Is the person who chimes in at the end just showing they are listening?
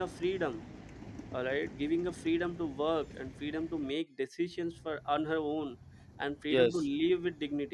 Yes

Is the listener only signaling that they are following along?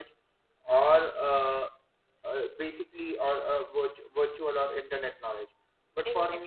Yes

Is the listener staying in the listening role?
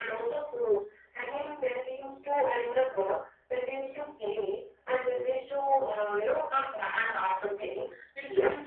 Yes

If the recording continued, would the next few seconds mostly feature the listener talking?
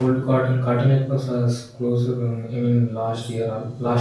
No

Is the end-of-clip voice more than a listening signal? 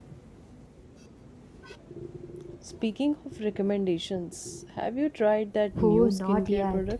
Yes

